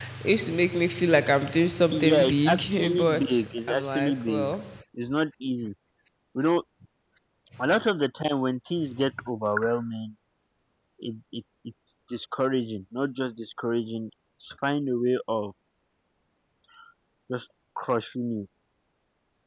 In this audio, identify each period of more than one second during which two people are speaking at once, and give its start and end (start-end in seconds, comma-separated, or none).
1.9-4.5